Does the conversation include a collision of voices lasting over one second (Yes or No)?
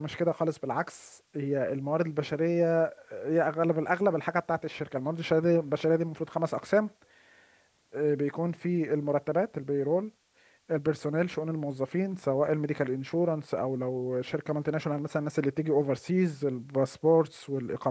No